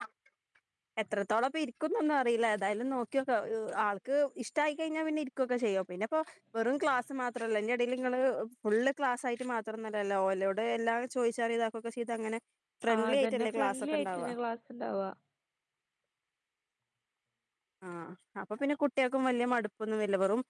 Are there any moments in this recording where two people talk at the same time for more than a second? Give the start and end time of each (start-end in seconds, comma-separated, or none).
12.9-14.3